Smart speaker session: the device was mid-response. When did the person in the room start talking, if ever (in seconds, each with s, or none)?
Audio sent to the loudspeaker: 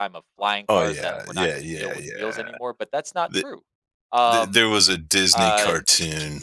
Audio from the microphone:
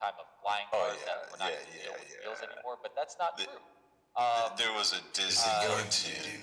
5.3 s